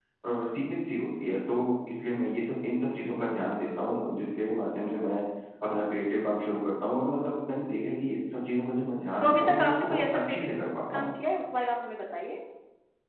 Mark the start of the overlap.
9.2 s

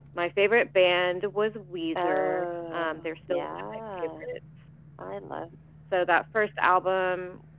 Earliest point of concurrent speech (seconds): 1.9 s

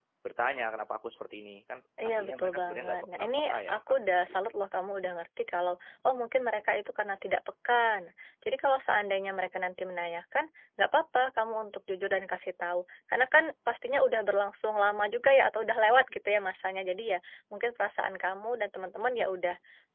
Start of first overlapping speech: 2.0 s

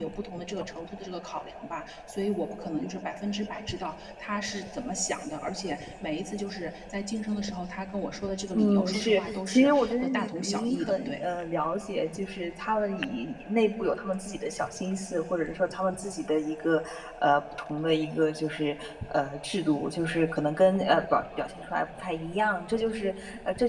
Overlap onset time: 8.5 s

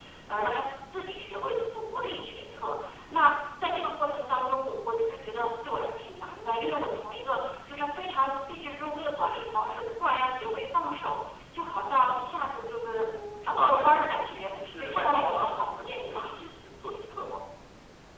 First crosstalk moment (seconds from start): 13.6 s

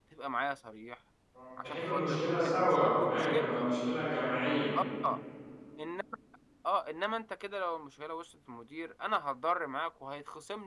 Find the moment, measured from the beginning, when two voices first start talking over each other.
1.6 s

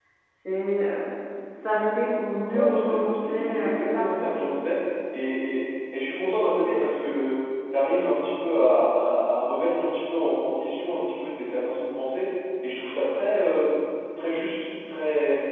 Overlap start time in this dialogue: 2.5 s

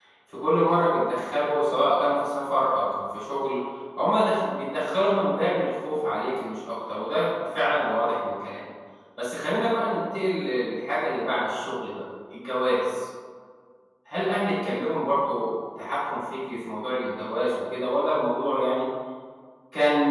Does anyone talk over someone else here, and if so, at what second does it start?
none

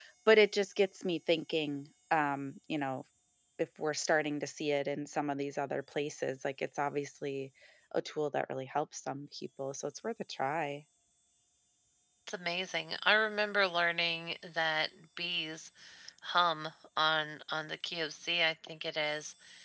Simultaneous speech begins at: none

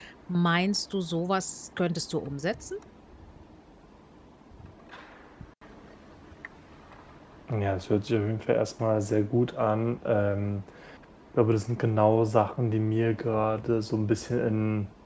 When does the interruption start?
none

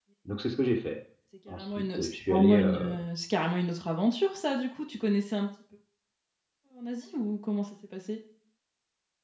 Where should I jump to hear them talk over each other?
1.5 s

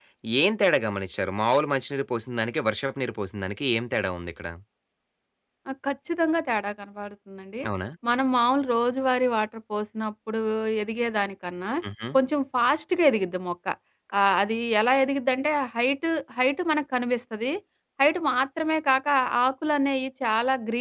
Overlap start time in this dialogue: none

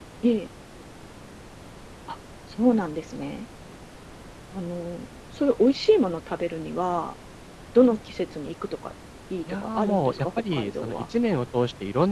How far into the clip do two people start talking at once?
9.5 s

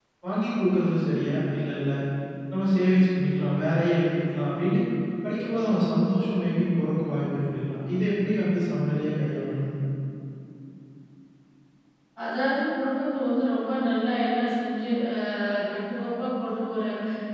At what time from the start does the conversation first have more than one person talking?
none

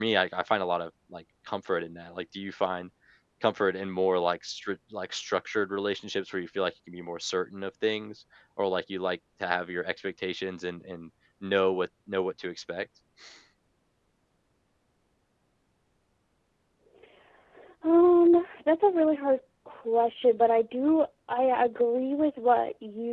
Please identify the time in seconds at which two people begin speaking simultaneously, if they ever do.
none

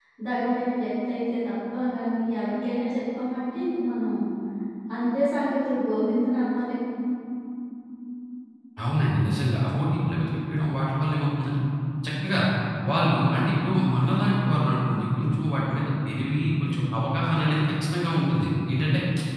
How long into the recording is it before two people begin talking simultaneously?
none

